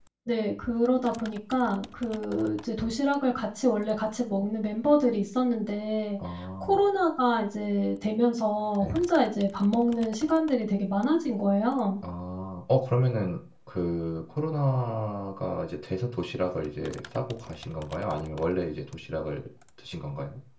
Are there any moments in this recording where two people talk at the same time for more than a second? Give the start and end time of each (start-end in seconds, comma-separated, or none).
none